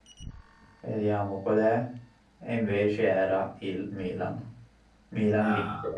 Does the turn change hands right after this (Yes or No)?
No